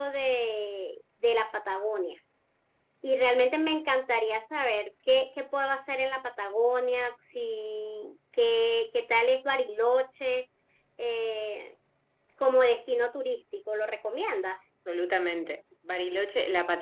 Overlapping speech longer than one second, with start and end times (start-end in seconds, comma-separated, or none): none